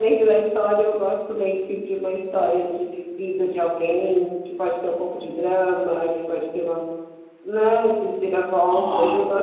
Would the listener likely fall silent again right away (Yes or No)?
Yes